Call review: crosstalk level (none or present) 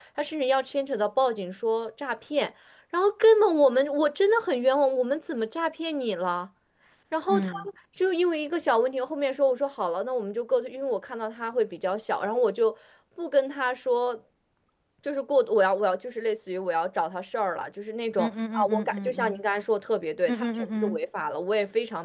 present